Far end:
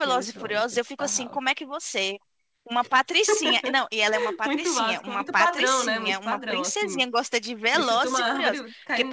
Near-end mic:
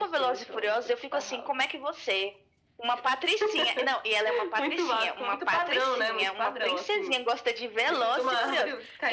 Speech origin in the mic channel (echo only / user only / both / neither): echo only